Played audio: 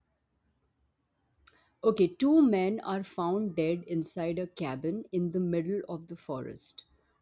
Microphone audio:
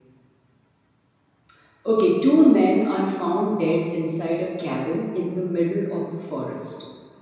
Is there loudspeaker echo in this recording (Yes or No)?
Yes